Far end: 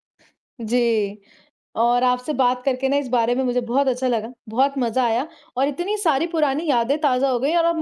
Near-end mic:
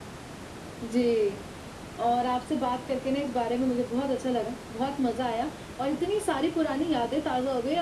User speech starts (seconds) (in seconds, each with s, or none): none